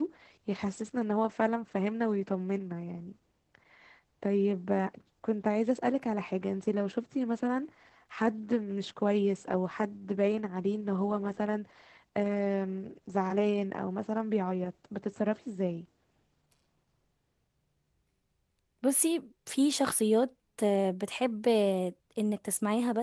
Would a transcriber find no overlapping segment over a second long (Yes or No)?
Yes